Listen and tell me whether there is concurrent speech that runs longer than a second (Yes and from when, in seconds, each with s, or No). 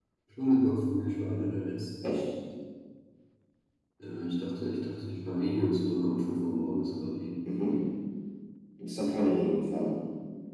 No